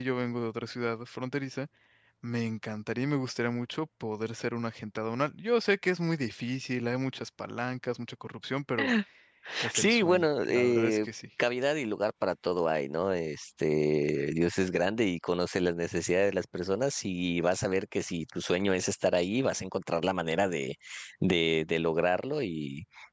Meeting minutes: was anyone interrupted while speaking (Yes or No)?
Yes